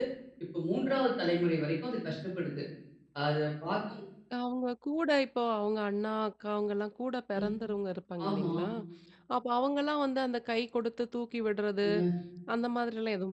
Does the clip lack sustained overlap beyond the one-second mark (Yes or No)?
Yes